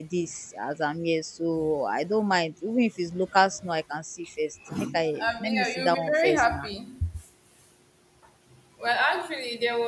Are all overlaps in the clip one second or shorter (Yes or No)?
No